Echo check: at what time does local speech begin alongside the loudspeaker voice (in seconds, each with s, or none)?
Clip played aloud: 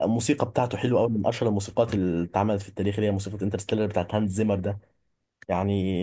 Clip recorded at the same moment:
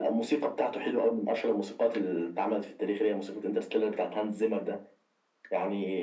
none